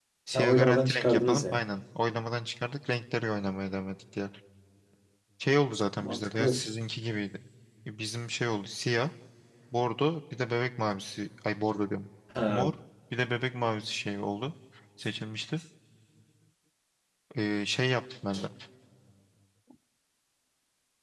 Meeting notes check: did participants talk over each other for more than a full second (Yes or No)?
Yes